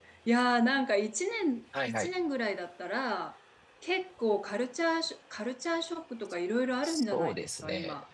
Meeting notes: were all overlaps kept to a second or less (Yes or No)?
No